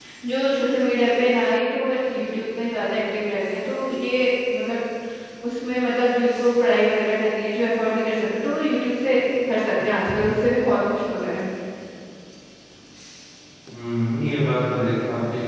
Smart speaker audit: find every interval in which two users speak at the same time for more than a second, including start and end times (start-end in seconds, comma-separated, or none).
none